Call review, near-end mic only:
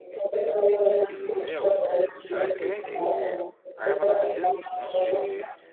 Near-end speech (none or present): present